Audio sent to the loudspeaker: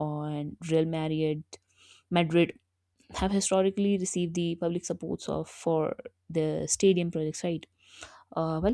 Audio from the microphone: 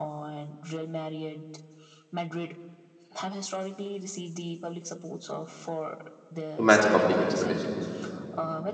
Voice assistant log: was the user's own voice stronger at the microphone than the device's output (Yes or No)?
Yes